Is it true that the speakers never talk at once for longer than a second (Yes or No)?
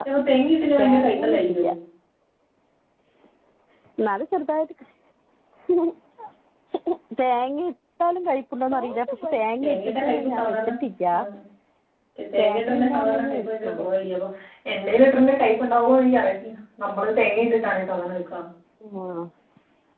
No